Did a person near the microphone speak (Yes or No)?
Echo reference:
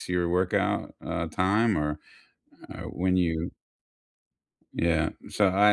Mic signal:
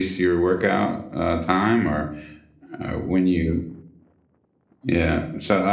No